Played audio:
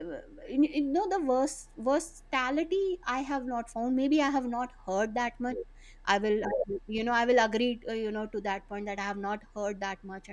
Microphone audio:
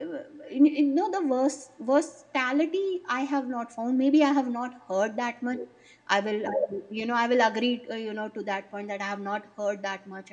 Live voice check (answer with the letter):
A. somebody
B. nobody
B